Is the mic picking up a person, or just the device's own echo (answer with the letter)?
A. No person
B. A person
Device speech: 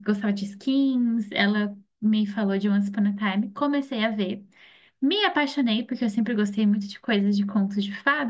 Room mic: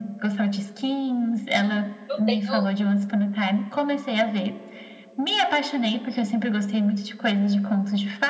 B